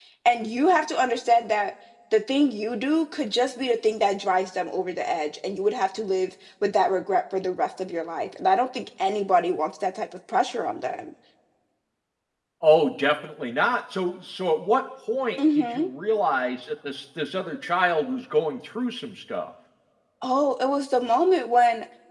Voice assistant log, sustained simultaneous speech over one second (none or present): none